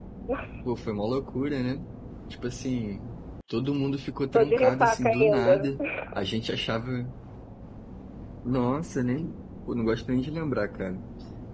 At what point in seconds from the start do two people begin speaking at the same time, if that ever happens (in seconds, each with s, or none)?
4.3 s